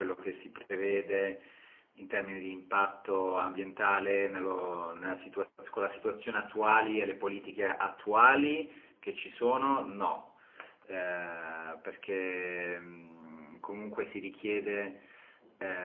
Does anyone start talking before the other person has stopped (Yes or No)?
No